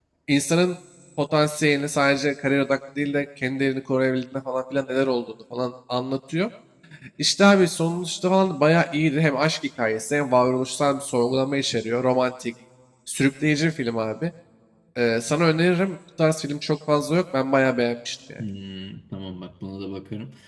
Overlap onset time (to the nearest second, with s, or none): none